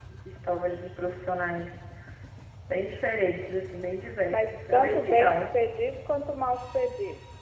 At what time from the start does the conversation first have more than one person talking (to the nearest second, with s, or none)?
4 s